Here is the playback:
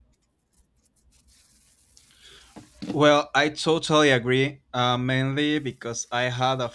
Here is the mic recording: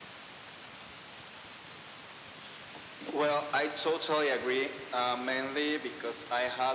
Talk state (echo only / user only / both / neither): echo only